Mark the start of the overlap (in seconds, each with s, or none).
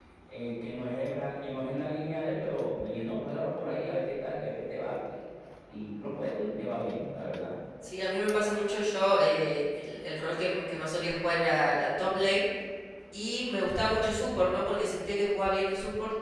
none